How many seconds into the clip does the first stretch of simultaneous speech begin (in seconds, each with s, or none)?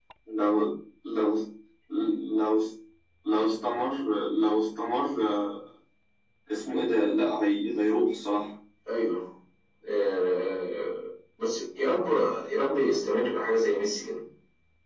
none